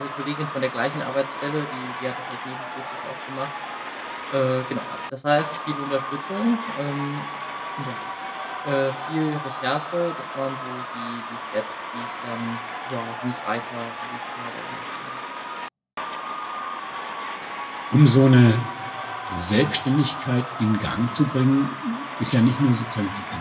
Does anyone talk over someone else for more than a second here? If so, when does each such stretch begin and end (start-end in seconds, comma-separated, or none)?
none